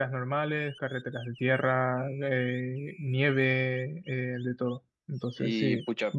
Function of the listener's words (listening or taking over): taking over